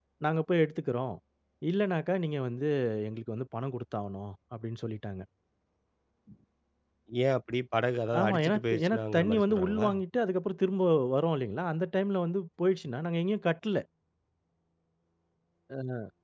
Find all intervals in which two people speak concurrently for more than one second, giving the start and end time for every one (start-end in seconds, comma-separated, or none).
8.2-9.9